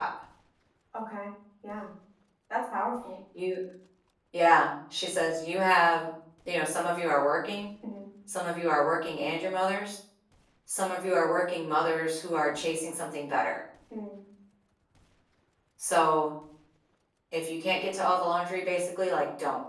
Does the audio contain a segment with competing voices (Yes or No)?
No